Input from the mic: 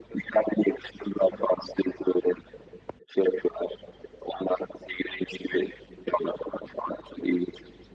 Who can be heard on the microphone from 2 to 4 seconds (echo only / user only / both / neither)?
echo only